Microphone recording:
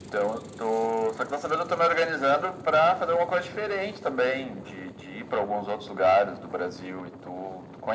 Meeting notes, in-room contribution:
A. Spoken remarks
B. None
B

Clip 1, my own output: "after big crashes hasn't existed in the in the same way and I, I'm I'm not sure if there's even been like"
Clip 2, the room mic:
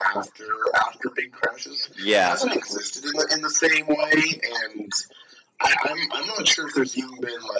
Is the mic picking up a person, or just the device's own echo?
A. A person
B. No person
A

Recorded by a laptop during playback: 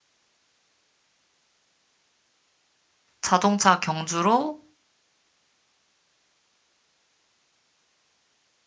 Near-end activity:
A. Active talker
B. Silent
A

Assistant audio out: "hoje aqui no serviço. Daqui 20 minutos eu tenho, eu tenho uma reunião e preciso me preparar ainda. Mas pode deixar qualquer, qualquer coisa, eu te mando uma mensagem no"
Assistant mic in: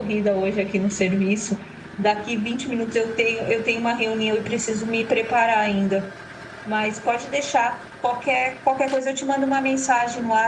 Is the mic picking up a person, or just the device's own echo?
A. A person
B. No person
B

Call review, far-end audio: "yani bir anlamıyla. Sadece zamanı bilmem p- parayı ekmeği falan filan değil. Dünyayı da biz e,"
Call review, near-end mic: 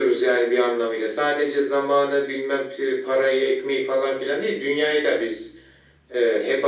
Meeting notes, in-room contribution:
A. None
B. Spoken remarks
A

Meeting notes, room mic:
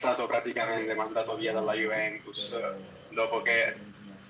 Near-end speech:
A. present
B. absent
A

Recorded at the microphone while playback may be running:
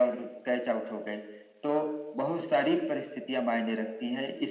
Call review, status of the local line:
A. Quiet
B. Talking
A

